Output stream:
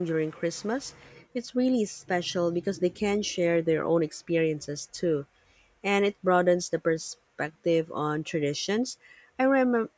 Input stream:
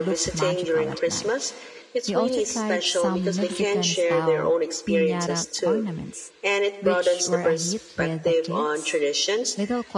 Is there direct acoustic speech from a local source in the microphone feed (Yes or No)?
Yes